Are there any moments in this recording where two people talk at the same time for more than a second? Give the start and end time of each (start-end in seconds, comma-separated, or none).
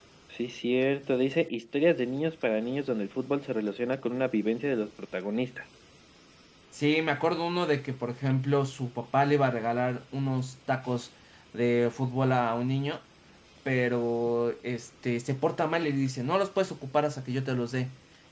none